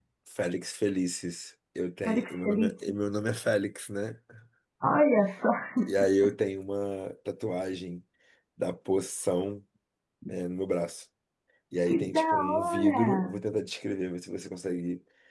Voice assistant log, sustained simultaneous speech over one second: present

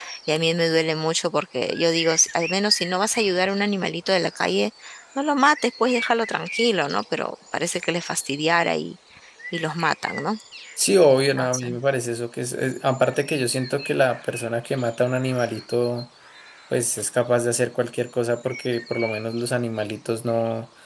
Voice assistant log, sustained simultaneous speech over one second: none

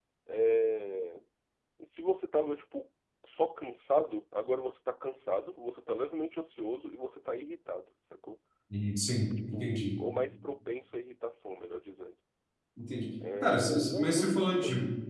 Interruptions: present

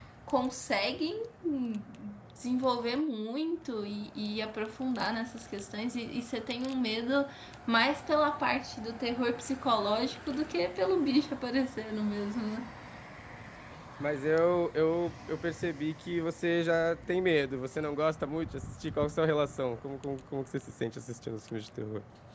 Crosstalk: none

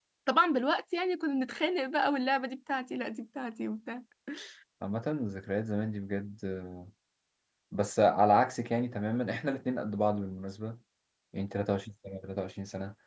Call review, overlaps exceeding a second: none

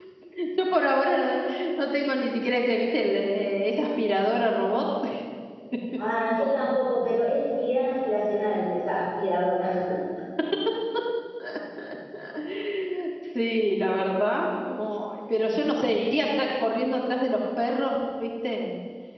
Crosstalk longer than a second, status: none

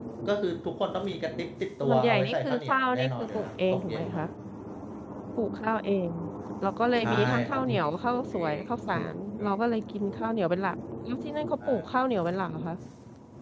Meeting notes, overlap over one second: present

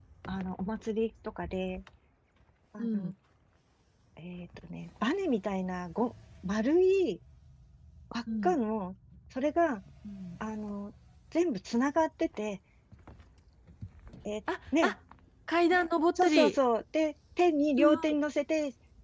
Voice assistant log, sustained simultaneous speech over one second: none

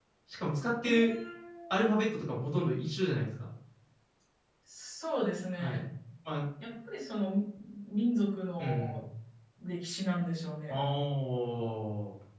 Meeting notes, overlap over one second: none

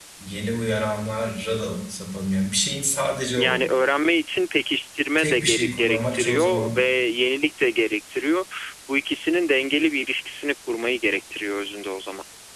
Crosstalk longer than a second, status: present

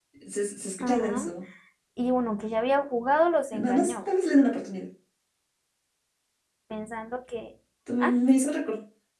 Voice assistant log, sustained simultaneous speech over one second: none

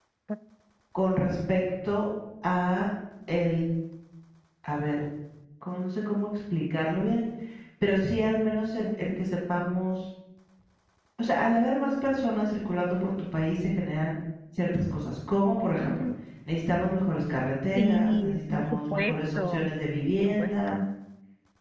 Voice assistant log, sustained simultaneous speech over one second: present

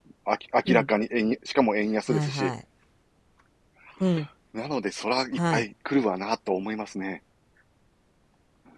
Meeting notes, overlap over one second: none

